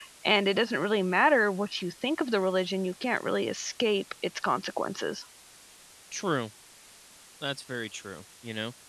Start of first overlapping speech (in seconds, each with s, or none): none